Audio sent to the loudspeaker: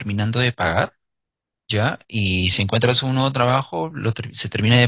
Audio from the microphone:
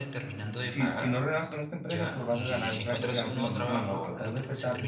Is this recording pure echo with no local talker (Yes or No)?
No